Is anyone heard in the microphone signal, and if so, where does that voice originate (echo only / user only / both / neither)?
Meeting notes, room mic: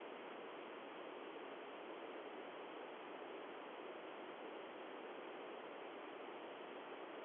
neither